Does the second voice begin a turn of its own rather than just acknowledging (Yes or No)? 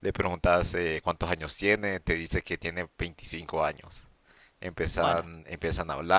No